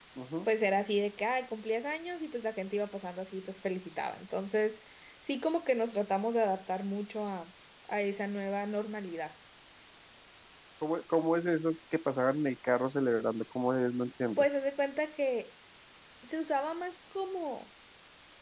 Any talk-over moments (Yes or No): No